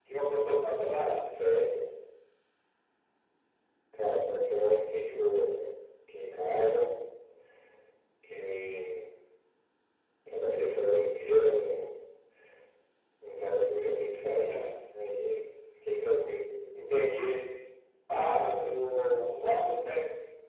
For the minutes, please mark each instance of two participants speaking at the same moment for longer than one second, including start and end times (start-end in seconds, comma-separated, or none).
none